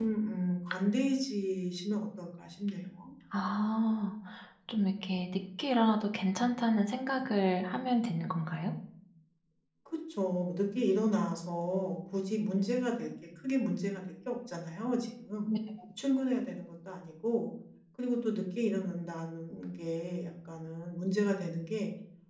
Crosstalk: none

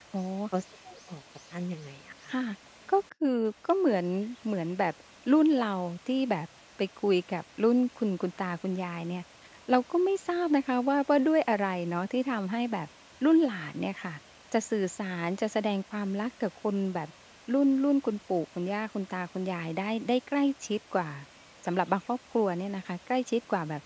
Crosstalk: none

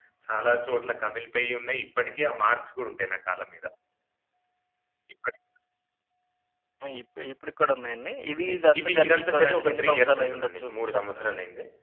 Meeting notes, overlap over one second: present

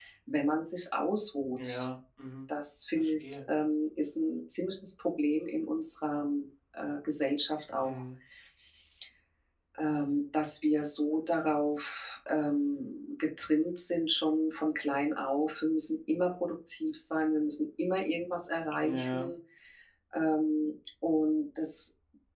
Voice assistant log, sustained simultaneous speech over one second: none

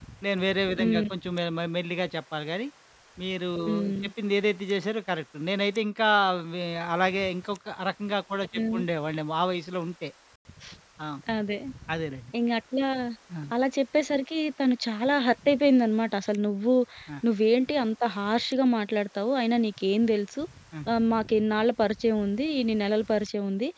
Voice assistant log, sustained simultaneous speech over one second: none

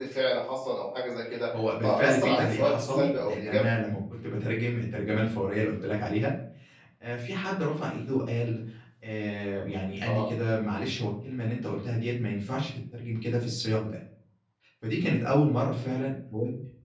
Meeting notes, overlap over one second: present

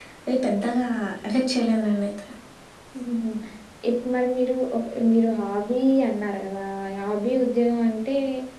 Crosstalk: none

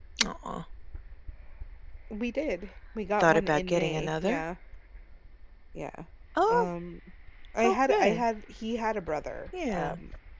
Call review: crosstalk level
present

